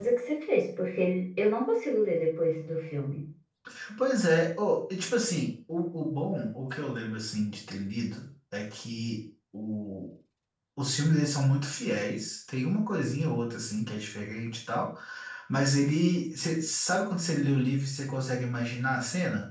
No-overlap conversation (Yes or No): Yes